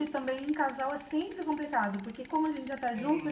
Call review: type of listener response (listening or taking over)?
listening